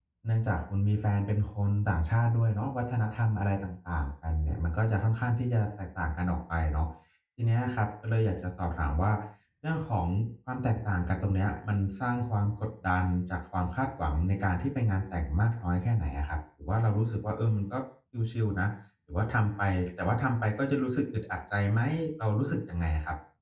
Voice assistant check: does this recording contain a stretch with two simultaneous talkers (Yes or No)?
No